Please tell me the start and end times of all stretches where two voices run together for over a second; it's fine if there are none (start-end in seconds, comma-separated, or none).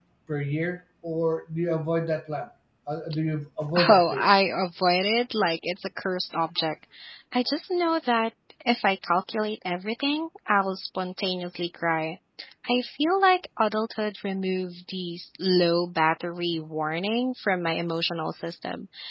none